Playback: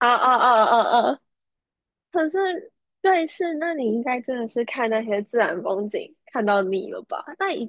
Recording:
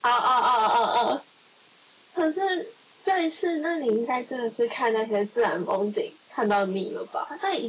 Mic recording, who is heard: echo only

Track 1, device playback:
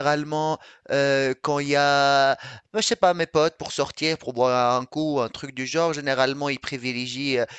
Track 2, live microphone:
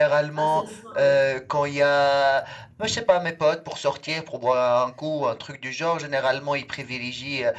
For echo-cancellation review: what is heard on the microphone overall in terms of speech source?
both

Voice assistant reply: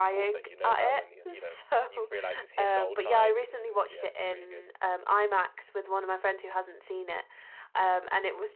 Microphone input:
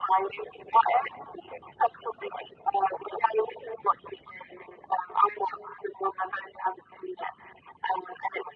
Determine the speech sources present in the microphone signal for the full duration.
echo only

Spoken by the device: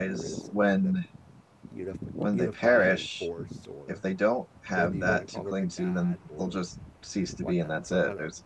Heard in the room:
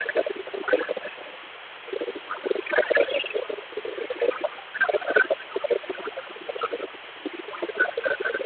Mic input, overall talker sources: echo only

